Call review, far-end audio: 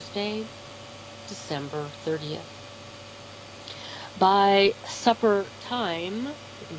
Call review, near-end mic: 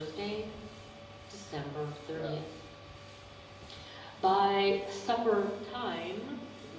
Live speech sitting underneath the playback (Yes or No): Yes